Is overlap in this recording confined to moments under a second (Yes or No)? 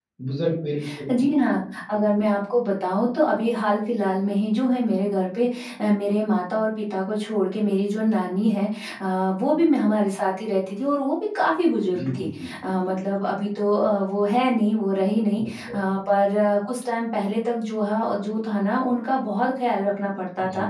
Yes